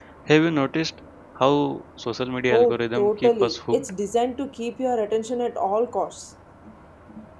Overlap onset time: 2.5 s

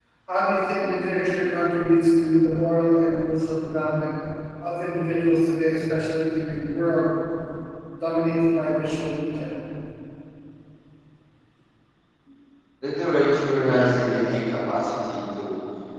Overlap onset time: none

